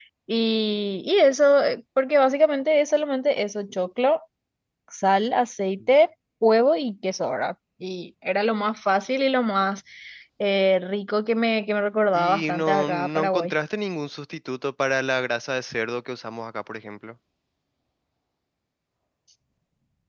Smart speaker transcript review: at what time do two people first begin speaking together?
12 s

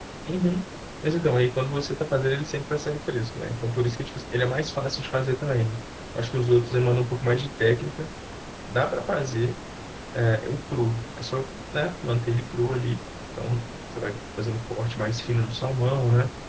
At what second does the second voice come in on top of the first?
none

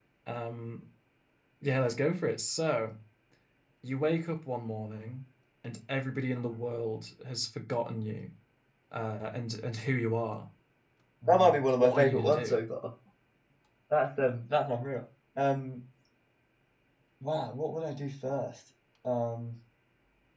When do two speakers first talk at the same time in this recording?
11 s

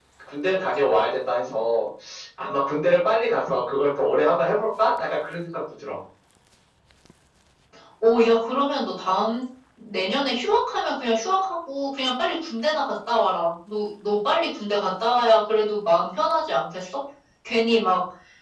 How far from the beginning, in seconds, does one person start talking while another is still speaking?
none

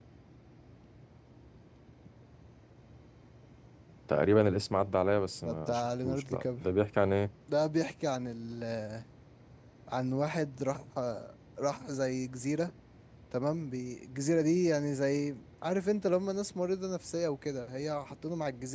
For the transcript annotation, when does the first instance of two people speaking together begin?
5 s

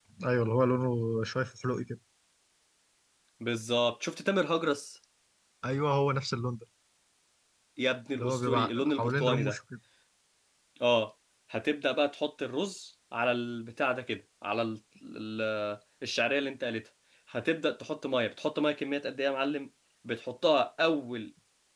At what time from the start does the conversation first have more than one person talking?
8 s

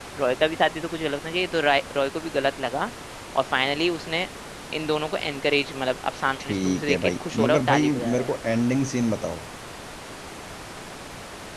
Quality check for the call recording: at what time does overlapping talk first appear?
6 s

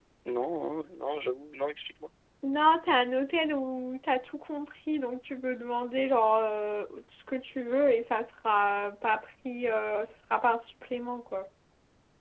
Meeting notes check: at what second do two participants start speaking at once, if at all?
none

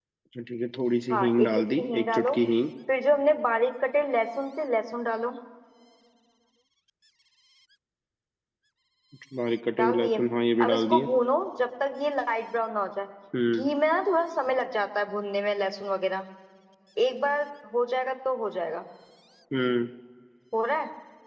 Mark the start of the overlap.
1 s

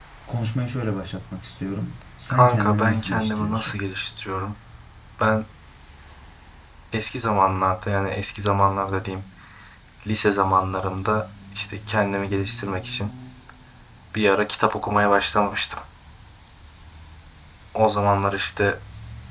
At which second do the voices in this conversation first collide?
2 s

